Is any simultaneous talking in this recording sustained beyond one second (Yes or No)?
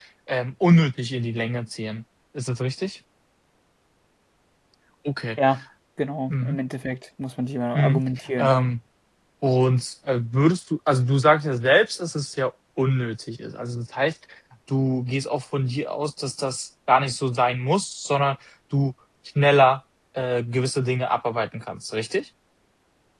No